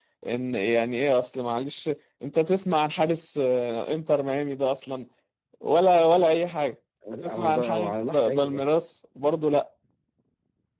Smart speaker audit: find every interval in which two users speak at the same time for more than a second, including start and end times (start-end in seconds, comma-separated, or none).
7.2-8.6